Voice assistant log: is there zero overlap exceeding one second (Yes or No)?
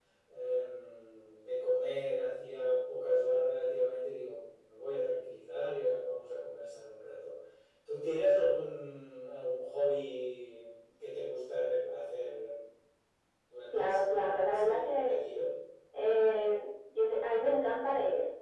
No